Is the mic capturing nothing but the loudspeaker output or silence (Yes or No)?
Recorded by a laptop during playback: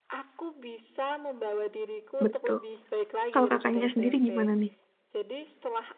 No